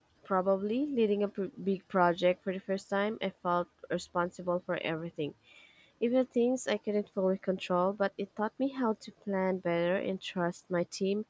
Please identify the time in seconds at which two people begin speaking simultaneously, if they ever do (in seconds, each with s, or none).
none